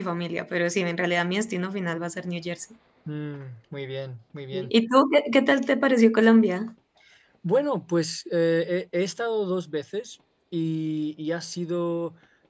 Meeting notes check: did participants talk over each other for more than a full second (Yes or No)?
No